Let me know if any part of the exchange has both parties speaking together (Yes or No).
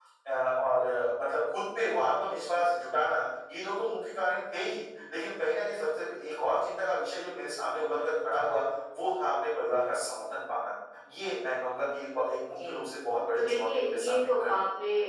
Yes